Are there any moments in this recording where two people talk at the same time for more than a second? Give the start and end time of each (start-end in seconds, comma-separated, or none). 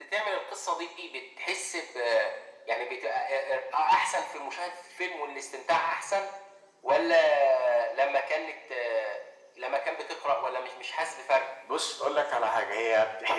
none